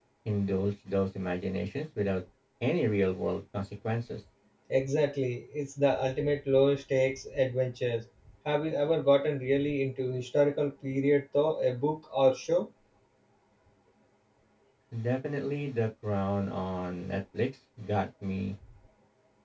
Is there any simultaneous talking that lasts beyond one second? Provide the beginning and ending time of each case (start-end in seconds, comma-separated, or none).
none